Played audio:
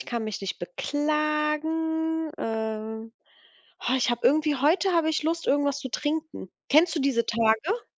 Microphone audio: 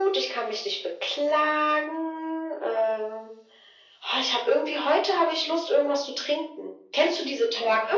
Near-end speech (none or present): none